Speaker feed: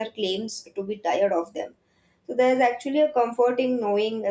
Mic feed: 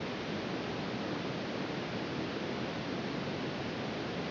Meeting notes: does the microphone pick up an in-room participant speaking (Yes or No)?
No